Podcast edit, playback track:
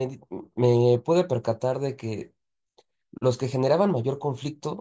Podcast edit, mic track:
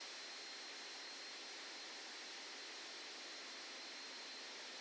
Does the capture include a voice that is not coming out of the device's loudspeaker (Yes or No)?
No